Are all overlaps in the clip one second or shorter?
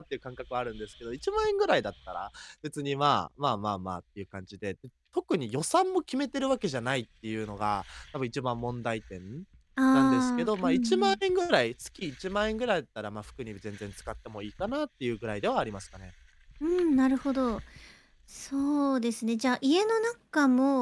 No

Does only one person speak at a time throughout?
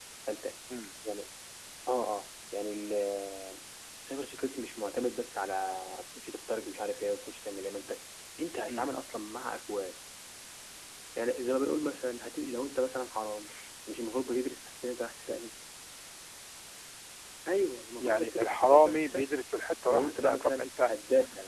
No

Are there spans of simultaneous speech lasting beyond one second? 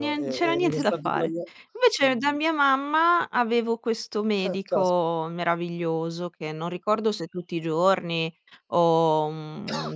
Yes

